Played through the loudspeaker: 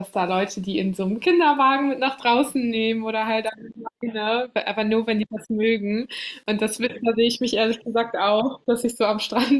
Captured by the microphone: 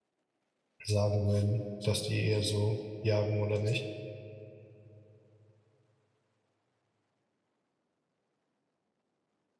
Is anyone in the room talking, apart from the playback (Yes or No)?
Yes